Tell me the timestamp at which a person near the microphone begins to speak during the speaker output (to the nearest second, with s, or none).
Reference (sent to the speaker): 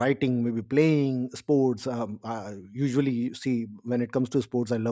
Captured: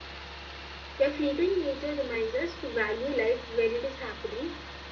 1 s